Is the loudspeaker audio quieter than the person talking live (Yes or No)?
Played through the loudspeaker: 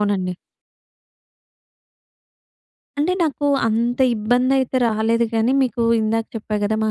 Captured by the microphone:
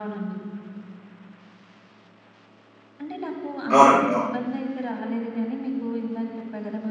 Yes